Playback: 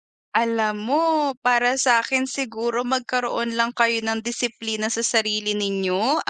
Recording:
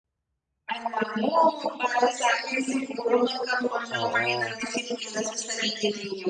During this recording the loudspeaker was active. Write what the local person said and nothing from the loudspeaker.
oo.

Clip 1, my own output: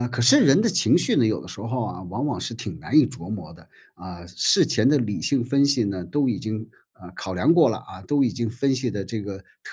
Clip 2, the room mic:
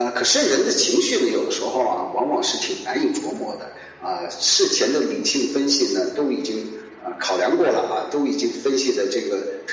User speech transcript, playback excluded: none

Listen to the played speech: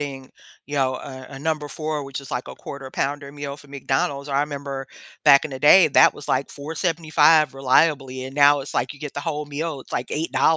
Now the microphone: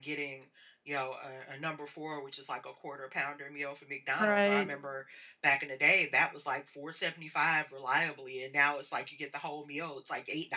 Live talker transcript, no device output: Right.

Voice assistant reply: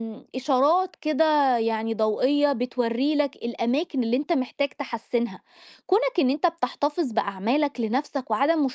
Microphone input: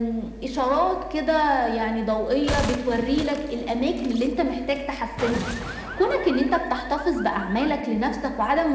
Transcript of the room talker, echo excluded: none

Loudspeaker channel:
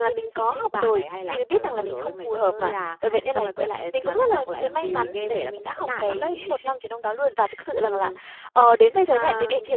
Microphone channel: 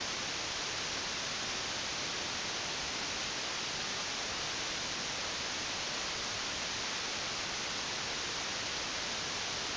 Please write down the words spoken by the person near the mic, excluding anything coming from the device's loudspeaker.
none

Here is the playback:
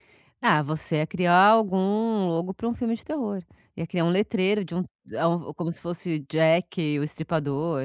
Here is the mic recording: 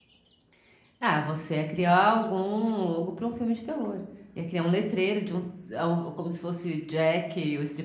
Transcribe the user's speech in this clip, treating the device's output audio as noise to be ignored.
none

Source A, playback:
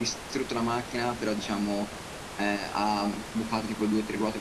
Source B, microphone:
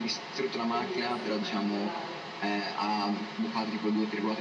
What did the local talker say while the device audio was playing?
Quindi è stato particolare.

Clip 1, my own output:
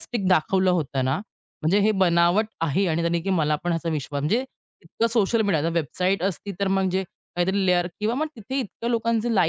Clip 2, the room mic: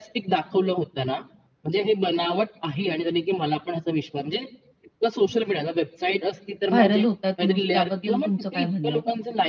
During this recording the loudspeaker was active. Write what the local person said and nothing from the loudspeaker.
व्हायरल होत आहेत न्यूज. त्याबद्दल तुमचं काय म्हणणं आहे?

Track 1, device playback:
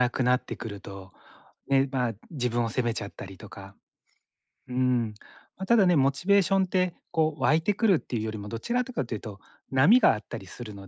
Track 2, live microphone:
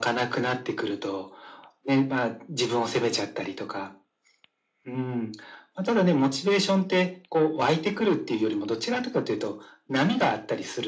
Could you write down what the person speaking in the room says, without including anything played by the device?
none

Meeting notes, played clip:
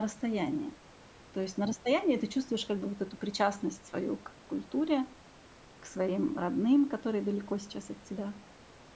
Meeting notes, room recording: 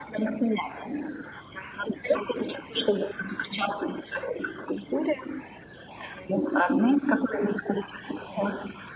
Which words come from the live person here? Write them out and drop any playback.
none

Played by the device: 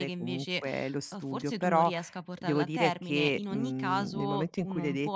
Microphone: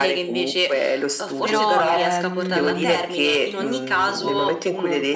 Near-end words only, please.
però, ehm

